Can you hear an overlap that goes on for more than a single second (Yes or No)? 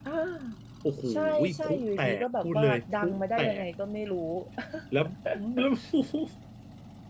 Yes